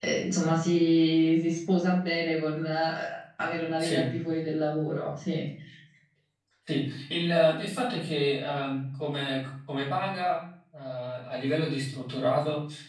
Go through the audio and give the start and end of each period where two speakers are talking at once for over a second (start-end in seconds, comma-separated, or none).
none